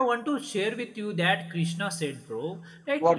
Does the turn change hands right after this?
No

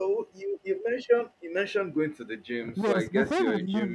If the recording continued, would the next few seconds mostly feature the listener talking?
Yes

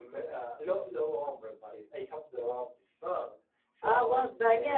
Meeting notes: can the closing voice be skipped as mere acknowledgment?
No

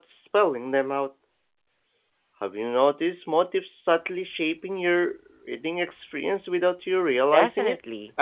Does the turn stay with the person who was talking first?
No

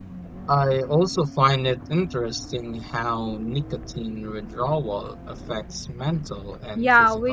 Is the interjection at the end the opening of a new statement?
Yes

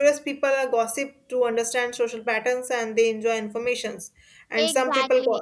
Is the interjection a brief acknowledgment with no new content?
No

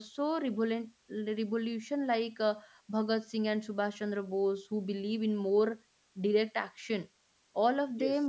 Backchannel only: Yes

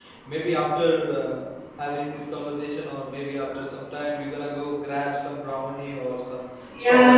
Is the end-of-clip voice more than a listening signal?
Yes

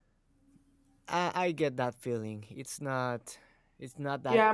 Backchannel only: No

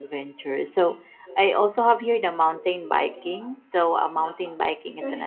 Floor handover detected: No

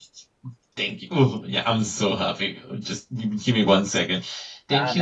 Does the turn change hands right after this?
Yes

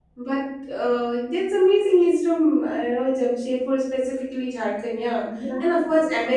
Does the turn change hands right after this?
No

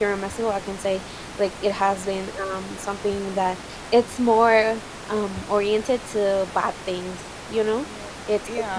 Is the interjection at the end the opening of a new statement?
No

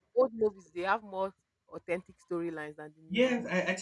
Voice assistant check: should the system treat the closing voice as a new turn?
Yes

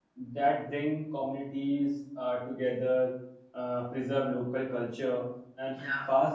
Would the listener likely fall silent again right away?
Yes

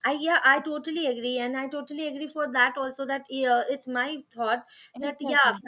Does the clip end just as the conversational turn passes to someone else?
No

